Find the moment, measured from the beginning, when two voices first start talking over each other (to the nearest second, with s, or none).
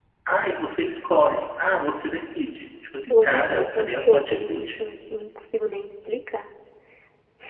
3 s